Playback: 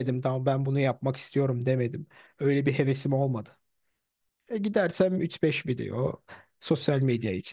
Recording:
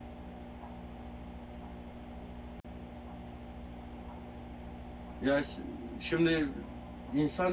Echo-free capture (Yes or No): Yes